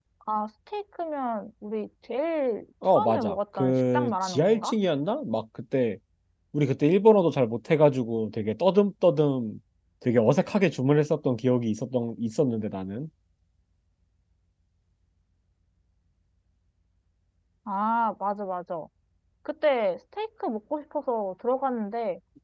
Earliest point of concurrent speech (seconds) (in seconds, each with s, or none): 2.8 s